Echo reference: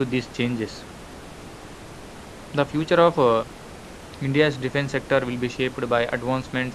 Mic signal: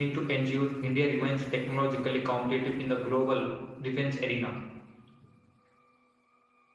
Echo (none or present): none